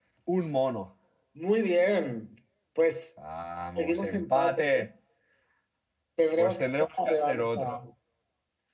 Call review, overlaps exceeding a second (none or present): present